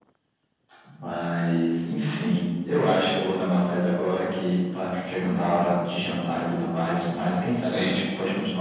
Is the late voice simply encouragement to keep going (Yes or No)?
Yes